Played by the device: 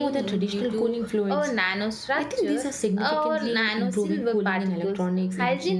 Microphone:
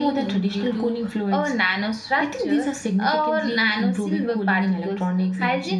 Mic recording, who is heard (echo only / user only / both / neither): echo only